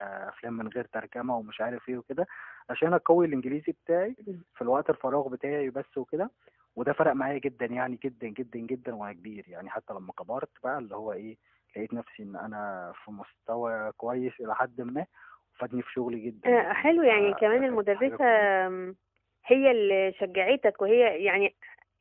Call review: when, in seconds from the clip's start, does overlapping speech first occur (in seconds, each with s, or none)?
16.4 s